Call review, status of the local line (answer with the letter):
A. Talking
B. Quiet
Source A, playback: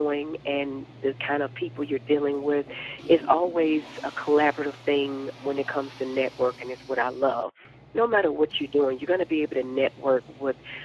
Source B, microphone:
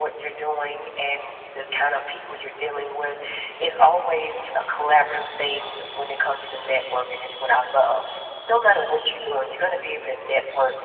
B